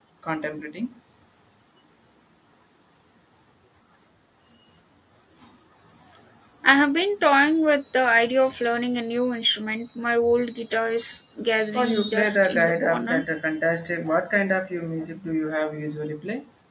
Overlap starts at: 11.7 s

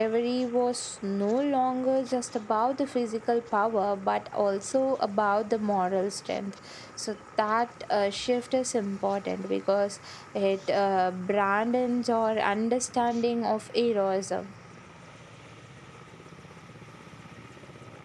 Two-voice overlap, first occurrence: none

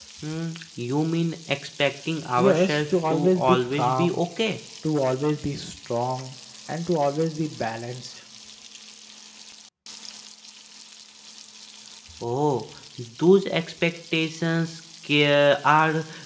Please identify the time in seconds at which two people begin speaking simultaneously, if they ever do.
2.4 s

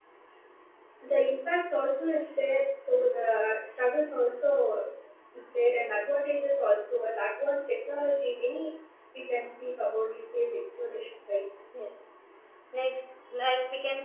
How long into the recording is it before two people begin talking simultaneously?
none

